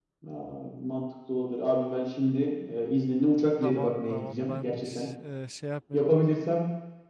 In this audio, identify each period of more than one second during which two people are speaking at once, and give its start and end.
3.6-5.1

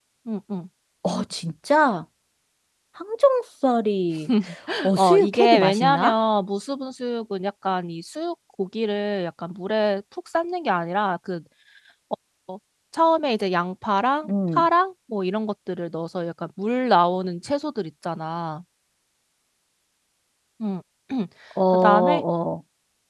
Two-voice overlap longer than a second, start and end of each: 4.9-6.1

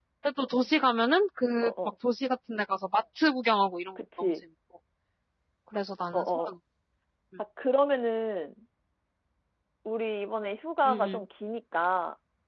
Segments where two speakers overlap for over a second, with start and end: none

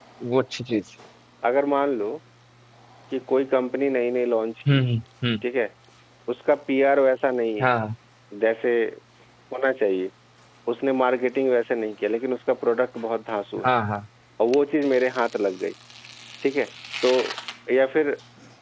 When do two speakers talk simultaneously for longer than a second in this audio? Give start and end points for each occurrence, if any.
none

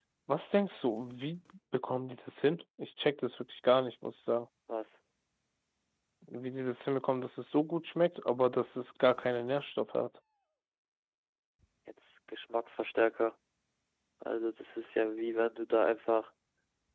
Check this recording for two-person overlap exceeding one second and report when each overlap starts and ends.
none

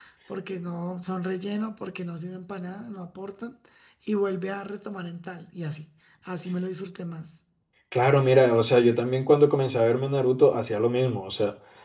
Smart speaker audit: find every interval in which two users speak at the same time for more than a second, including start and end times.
none

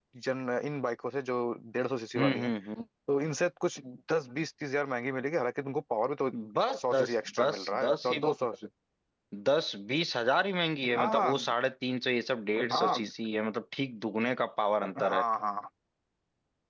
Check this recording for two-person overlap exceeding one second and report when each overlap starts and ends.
6.9-8.2

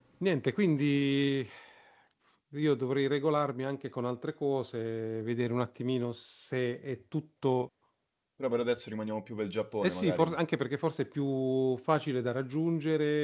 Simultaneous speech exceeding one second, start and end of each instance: none

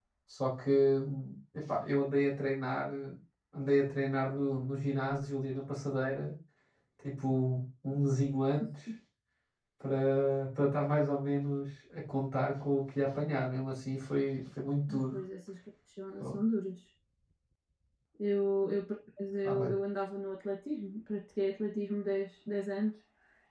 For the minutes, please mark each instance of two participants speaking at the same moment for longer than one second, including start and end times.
none

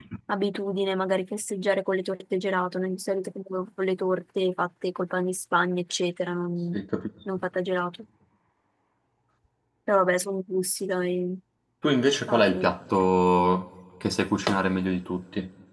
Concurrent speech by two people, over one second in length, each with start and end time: none

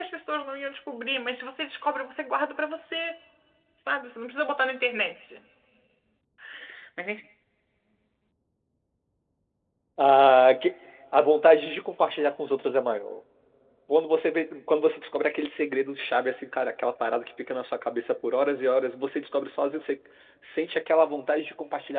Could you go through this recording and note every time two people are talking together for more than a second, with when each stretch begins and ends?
none

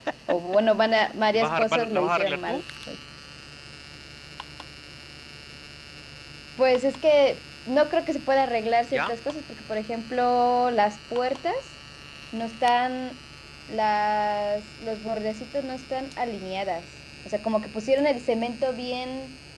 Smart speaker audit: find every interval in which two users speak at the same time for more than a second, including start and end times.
1.3-2.6

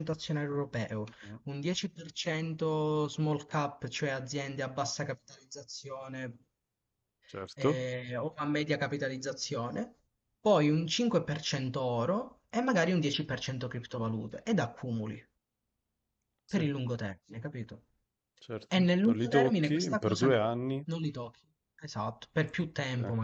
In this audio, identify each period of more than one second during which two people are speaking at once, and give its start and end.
18.7-20.4

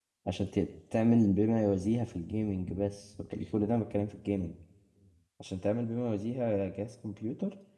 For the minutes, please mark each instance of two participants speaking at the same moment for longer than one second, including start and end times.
none

